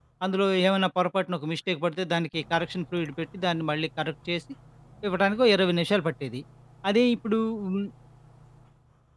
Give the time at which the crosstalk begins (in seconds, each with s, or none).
none